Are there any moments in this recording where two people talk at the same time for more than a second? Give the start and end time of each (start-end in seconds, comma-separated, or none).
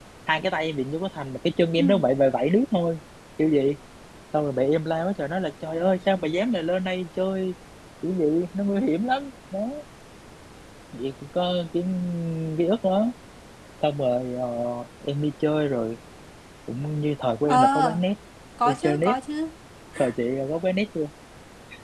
none